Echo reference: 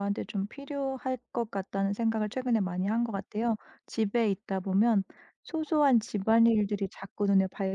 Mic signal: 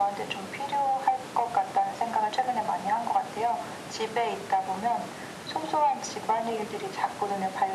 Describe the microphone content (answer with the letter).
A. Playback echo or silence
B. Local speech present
A